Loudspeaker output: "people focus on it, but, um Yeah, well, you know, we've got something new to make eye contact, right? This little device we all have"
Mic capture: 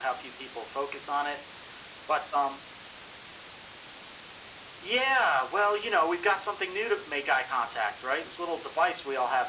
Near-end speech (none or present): none